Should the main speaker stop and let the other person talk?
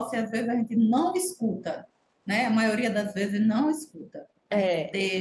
No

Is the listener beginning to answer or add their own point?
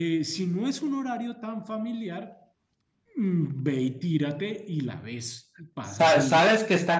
Yes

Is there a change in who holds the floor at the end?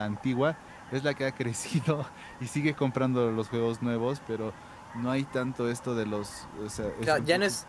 Yes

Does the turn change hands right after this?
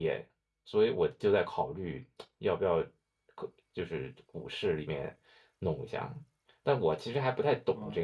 No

